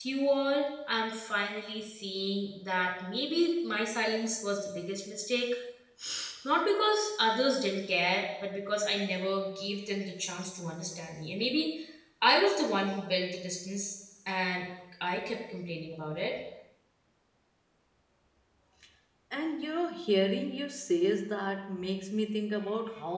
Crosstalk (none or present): none